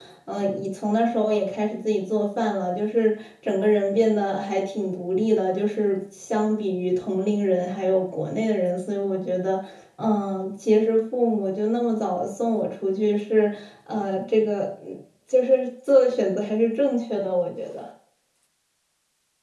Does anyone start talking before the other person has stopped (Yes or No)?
No